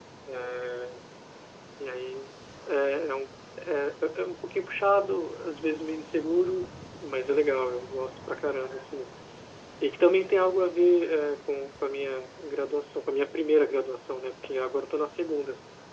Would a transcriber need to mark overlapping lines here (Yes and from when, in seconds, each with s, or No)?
No